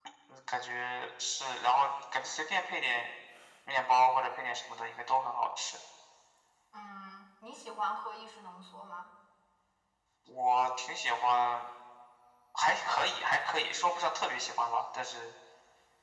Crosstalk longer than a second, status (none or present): none